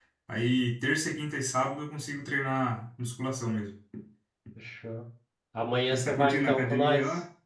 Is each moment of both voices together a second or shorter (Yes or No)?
No